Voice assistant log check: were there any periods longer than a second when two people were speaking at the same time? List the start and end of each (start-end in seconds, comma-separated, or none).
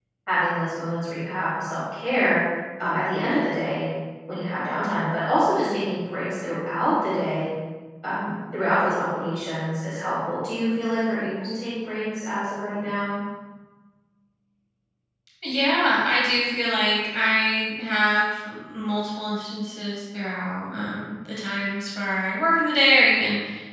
none